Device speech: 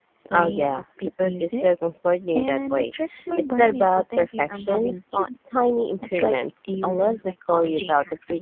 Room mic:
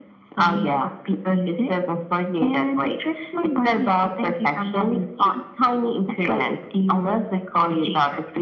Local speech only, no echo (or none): none